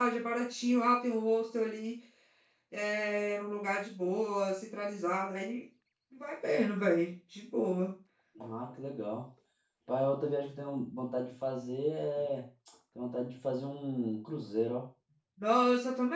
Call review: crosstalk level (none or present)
none